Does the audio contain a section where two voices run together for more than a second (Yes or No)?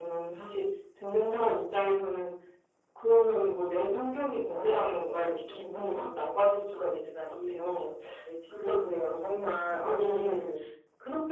Yes